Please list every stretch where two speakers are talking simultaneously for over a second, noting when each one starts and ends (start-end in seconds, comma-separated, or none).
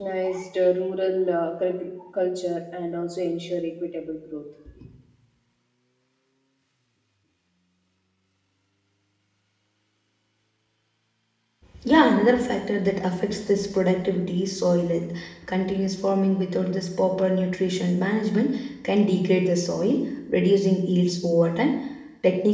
none